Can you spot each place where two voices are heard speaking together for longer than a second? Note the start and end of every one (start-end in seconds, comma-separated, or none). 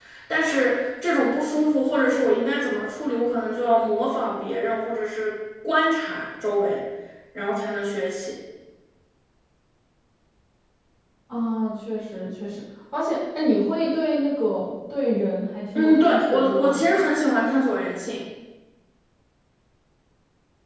15.7-17.0